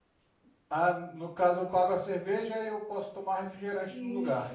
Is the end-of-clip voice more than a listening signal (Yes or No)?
Yes